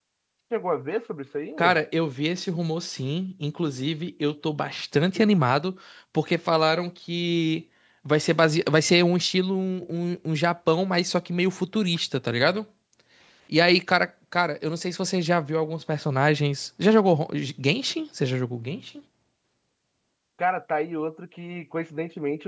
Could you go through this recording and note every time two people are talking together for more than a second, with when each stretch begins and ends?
none

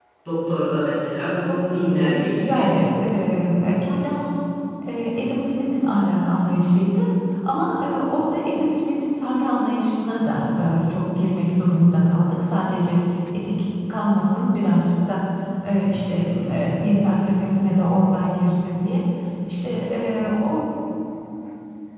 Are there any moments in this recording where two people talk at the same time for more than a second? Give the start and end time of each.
1.1-2.7

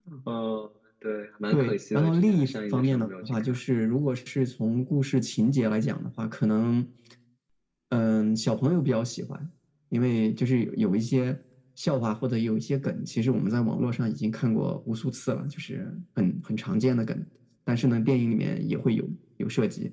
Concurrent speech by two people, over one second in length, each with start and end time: 1.5-3.6

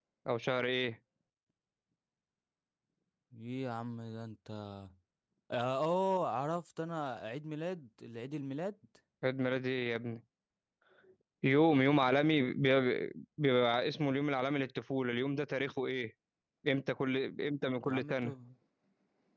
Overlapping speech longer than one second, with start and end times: none

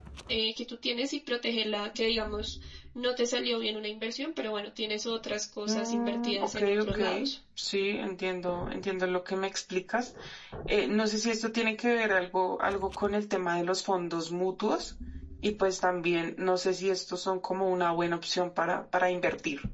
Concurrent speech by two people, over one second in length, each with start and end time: 5.7-7.0

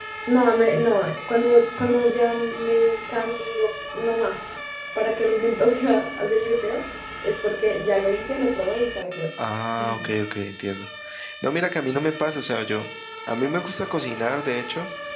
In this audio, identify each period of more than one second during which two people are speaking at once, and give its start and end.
none

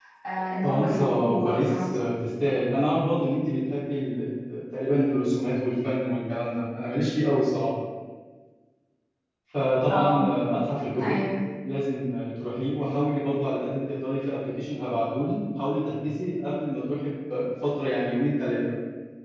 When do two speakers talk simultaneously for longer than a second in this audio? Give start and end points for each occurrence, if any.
0.6-2.0

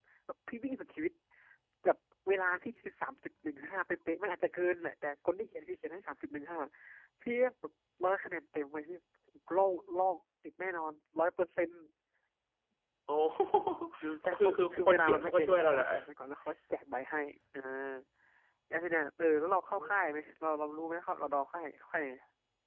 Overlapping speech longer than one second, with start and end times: 14.2-15.8

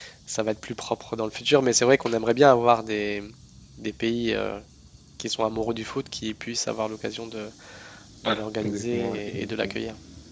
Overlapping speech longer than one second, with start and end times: 8.2-9.8

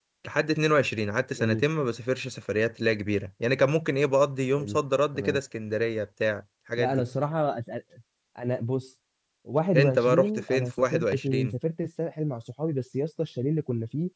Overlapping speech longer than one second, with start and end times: 9.8-11.6

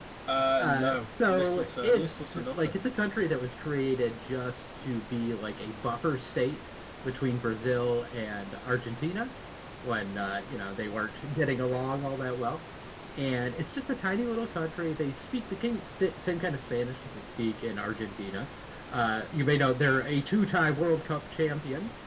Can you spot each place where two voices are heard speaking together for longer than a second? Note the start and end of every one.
0.6-2.8

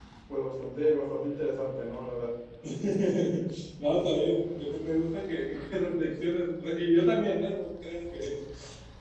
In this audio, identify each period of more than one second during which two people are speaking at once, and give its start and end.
none

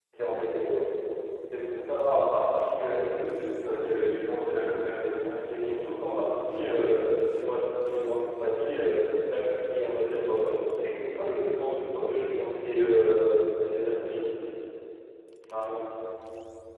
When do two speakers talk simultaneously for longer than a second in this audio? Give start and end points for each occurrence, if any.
none

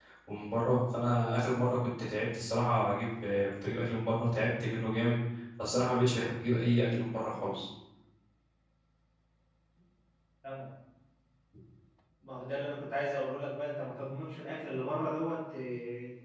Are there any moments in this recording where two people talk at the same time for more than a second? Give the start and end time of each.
none

